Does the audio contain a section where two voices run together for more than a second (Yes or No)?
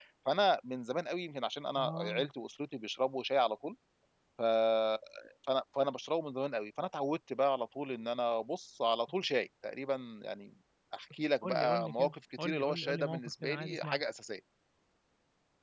Yes